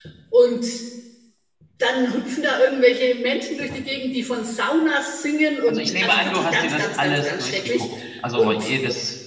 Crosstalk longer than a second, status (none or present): present